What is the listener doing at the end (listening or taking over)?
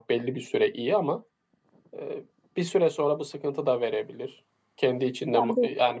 listening